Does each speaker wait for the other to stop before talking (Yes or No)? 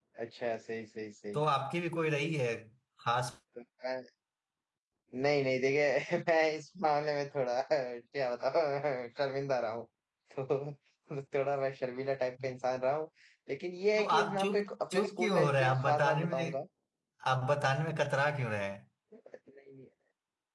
No